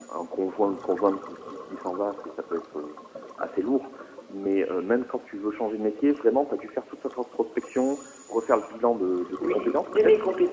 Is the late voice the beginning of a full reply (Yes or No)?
Yes